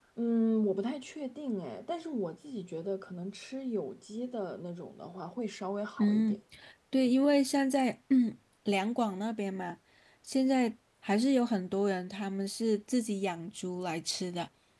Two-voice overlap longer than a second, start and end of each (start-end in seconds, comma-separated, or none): none